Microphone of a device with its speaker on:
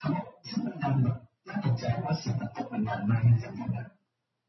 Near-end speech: none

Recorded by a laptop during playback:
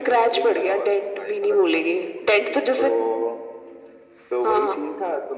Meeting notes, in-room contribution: none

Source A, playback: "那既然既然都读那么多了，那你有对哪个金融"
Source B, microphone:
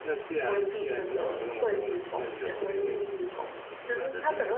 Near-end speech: present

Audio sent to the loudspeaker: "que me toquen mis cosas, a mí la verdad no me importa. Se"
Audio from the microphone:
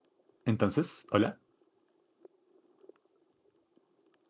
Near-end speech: present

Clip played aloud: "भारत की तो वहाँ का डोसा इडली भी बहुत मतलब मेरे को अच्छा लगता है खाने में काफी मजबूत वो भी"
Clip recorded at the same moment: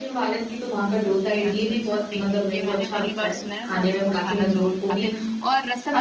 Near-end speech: present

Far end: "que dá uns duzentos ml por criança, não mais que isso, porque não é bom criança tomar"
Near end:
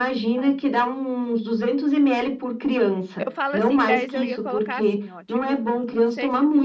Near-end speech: present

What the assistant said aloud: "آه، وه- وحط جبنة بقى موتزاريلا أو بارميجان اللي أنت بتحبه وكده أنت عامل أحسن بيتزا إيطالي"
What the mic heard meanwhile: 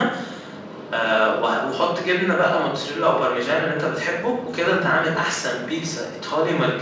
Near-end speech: none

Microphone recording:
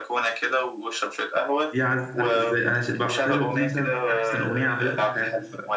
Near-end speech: present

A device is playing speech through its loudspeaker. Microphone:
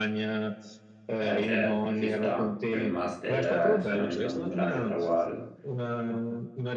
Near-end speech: present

